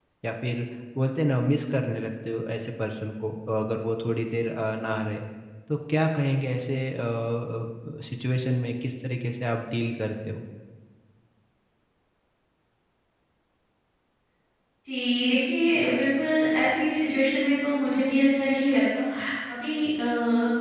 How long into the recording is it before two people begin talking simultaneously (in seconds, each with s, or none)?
none